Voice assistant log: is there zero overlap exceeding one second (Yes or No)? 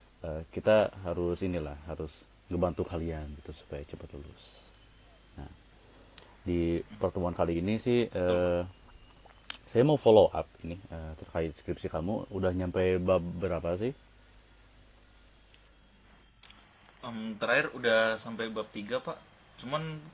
Yes